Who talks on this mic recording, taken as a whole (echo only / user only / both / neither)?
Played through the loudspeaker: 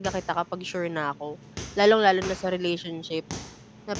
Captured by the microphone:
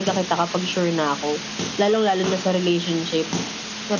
echo only